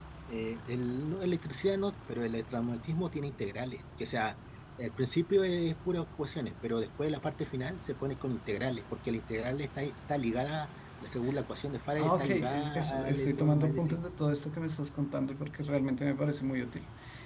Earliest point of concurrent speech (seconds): 12.0 s

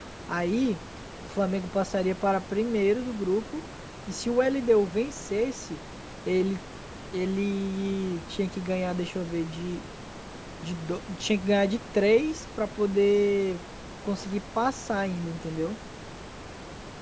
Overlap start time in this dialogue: none

